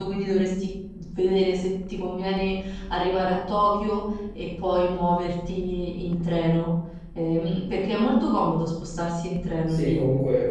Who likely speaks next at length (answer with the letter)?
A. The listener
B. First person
A